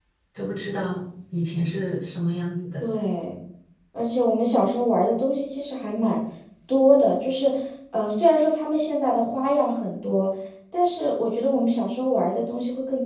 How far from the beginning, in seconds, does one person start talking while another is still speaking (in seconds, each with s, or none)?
none